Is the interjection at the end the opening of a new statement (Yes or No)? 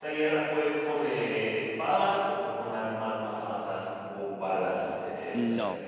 Yes